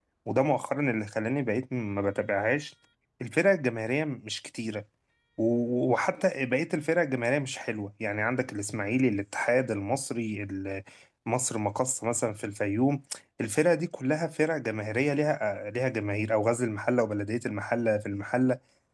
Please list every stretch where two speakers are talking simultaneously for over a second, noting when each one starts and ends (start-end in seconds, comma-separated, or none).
none